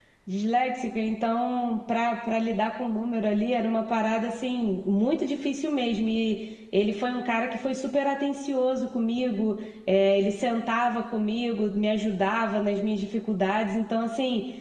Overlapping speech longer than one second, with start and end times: none

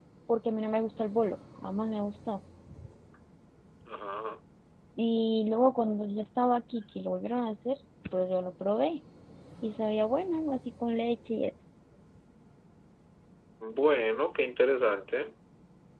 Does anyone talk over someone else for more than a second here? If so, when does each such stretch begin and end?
none

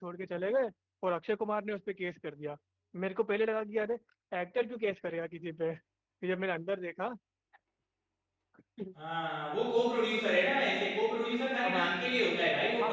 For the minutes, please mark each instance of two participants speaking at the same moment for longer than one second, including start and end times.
none

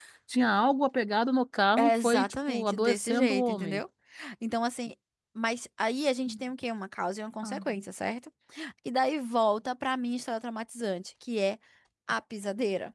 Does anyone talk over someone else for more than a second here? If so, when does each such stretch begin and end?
1.8-3.8

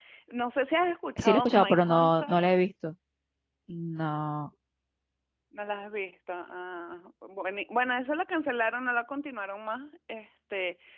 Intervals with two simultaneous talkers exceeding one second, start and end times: 1.2-2.4

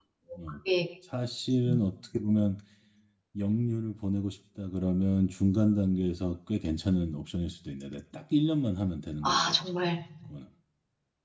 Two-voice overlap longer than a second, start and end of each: none

